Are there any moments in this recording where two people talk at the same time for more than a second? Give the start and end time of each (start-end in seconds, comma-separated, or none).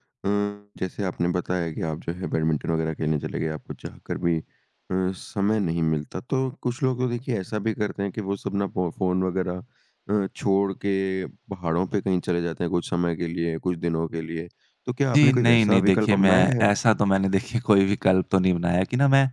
15.1-16.7